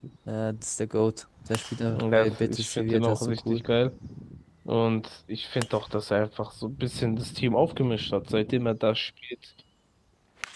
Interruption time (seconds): 1.9 s

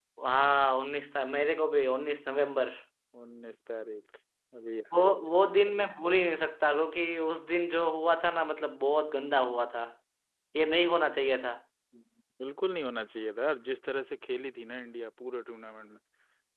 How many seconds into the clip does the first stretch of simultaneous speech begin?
none

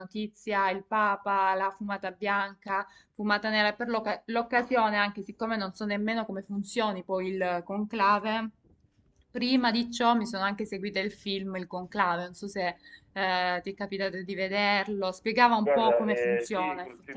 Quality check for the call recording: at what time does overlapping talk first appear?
15.6 s

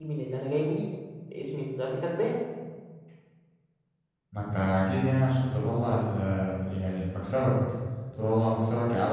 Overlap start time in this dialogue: none

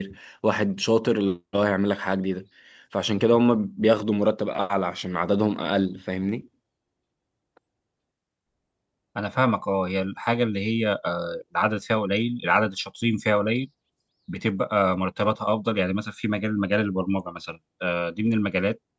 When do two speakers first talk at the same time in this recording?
none

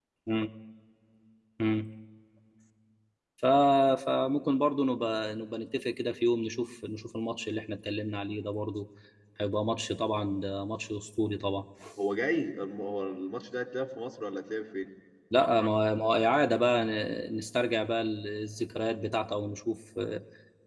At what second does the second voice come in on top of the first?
none

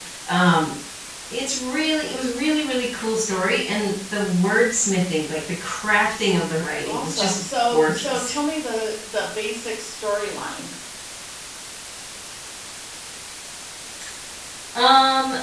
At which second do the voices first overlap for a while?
6.8 s

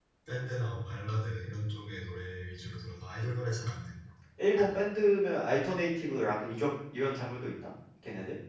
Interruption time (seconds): none

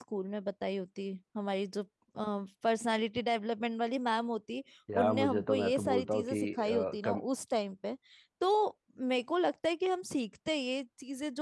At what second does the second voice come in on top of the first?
5.0 s

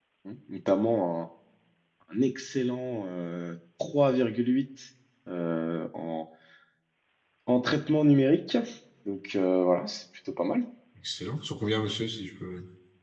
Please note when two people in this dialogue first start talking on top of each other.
none

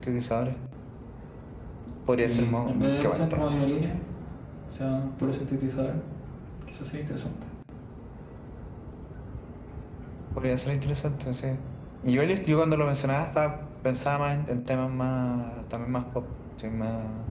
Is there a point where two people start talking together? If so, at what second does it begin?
2.2 s

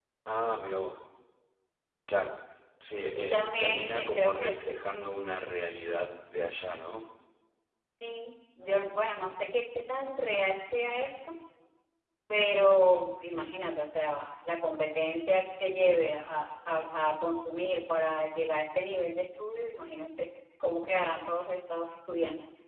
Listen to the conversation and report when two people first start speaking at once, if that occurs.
3.2 s

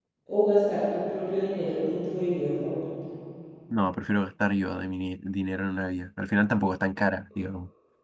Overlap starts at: none

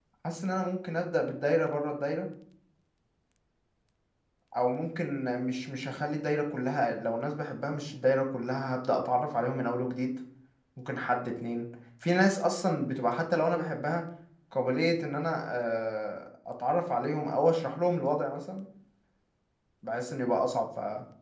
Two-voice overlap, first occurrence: none

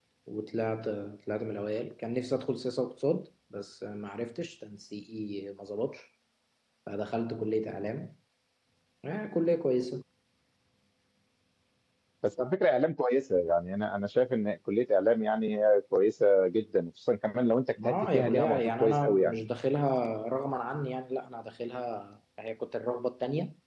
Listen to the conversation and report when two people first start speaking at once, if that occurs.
17.8 s

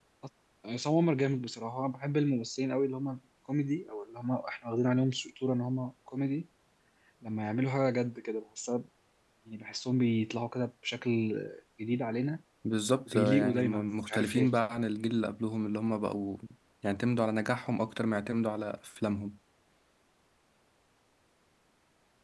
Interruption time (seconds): 13.1 s

